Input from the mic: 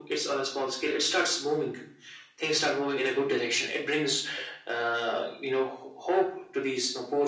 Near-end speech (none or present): none